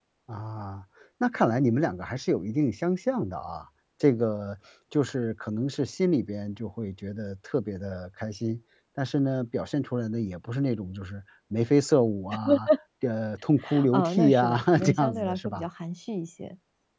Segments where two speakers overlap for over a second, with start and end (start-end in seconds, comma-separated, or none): 13.9-15.7